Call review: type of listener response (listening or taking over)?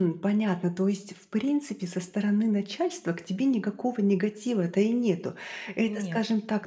listening